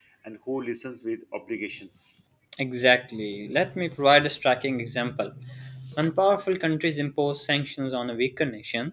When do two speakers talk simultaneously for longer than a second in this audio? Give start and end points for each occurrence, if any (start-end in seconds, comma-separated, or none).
none